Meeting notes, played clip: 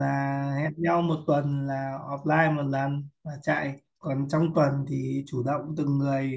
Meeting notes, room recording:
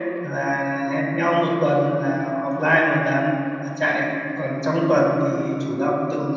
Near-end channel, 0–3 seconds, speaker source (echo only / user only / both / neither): echo only